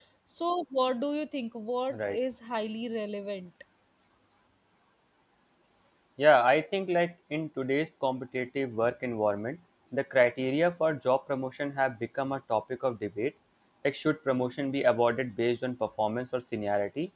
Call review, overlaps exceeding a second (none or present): none